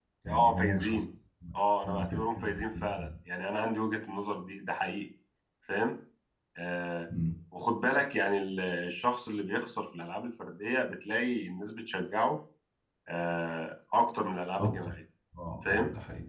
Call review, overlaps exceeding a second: present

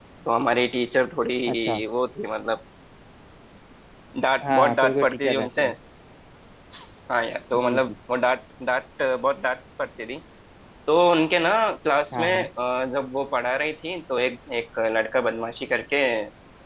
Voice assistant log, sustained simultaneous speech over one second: present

